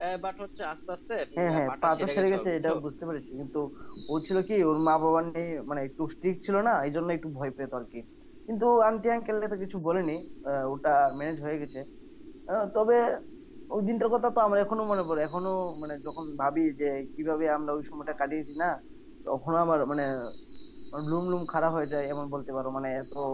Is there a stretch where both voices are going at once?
Yes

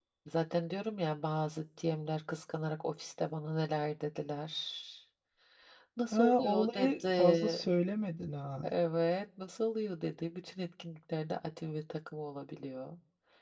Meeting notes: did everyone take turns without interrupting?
No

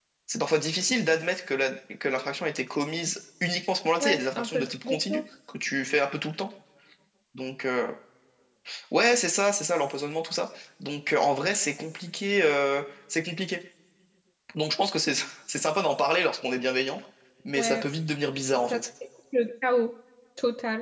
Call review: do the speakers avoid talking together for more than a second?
No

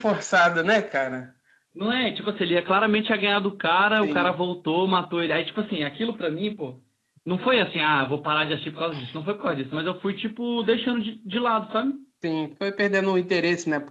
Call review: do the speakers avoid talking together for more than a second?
Yes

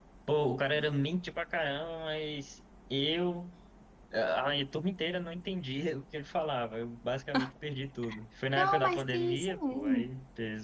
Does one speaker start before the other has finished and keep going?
Yes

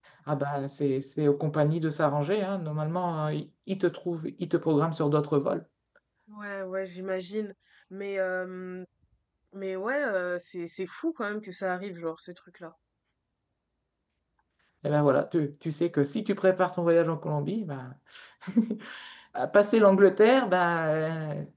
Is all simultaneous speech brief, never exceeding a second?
Yes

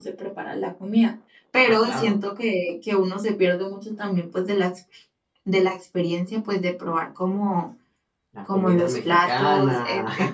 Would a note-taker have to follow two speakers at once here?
Yes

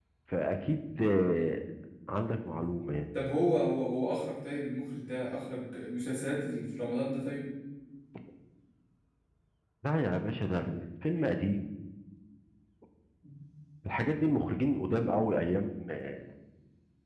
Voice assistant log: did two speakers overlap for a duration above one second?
No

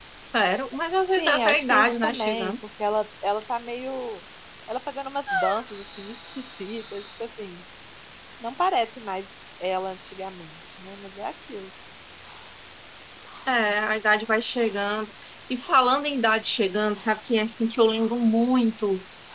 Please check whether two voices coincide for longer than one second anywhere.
Yes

